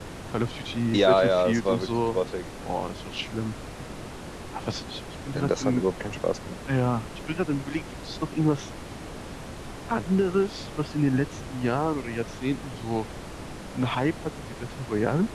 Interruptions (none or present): present